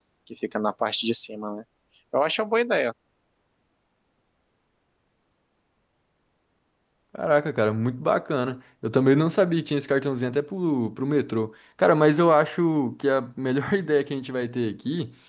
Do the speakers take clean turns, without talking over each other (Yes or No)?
Yes